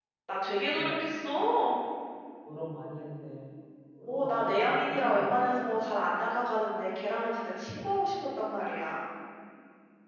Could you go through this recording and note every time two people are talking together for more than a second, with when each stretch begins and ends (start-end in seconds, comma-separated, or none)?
4.0-5.4